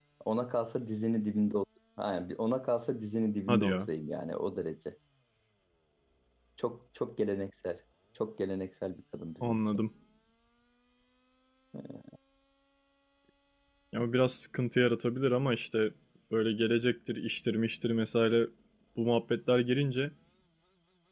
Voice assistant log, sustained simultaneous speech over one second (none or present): none